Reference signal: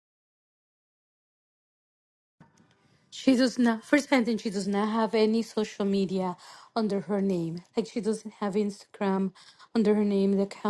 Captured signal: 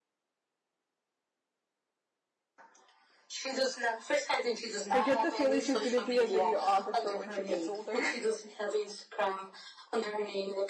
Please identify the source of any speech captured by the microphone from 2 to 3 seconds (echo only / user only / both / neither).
neither